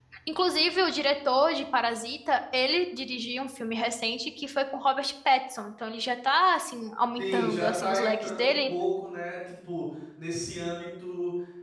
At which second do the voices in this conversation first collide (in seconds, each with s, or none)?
7.2 s